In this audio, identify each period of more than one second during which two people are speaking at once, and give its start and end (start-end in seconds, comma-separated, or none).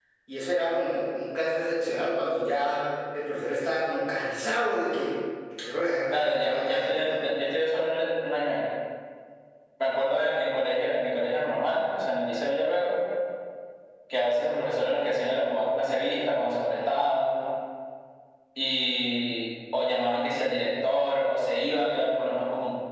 6.1-7.3